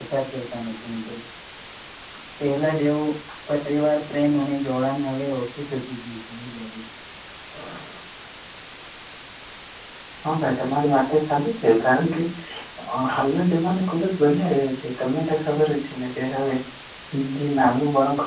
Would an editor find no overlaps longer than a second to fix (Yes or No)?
Yes